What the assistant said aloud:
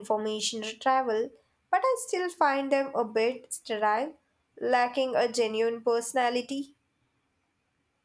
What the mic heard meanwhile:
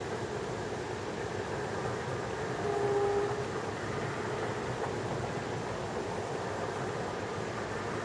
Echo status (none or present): none